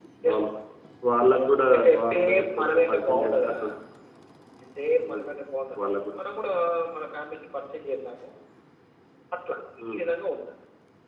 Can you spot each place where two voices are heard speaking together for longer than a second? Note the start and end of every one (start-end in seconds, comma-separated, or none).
1.8-3.5